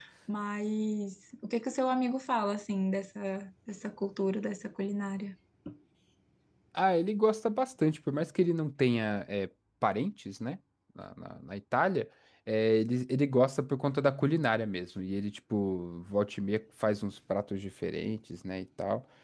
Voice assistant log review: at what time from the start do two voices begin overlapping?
none

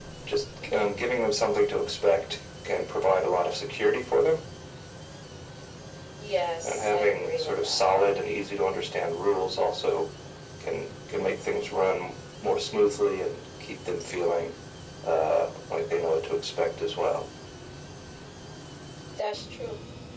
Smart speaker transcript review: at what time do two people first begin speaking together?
6.6 s

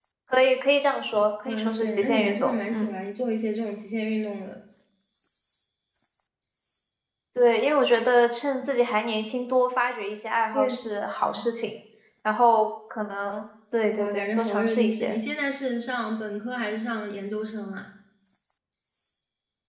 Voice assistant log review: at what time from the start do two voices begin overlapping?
1.5 s

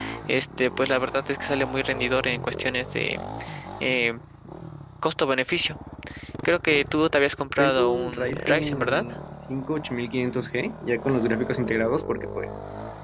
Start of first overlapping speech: 7.6 s

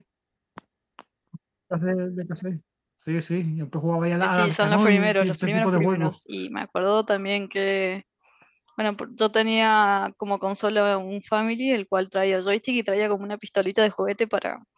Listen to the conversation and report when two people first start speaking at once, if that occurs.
4.2 s

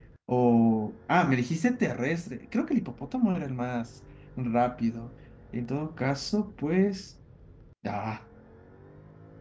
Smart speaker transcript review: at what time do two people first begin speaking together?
none

